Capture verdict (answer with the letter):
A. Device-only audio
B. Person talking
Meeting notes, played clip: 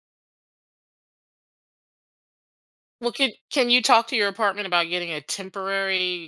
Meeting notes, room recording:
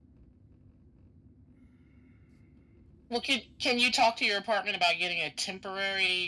A